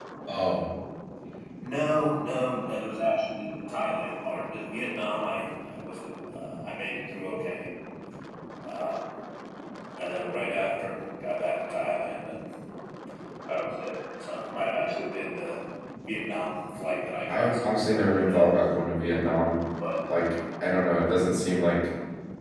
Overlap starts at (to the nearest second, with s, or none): 17 s